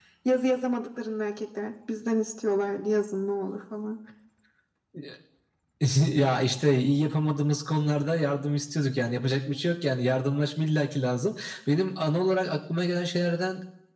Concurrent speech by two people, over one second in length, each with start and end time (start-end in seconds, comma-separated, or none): none